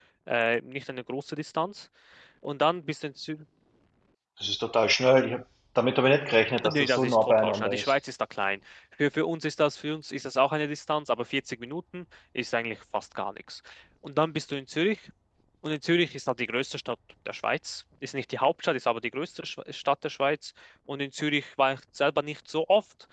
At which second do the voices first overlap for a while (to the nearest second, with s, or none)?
7 s